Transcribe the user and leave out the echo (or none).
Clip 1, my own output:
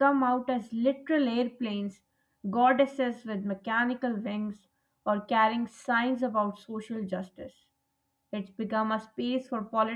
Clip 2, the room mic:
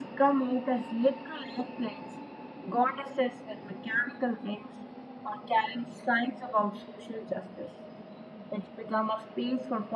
none